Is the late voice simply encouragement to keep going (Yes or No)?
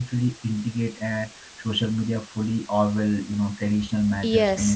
No